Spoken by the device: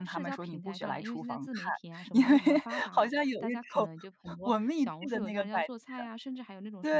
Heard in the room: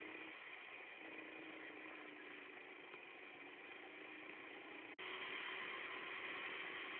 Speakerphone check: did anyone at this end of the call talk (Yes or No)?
No